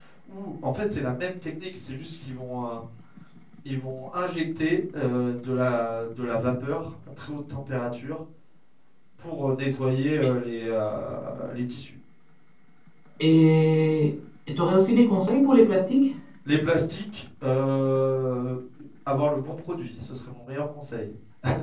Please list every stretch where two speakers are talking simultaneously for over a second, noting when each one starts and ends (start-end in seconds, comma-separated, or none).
none